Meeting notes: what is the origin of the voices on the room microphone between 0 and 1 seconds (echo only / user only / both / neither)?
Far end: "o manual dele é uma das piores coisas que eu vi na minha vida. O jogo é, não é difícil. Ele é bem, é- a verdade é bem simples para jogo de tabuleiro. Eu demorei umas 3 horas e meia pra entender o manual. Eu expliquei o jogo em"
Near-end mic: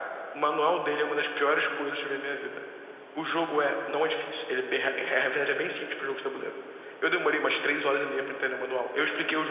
echo only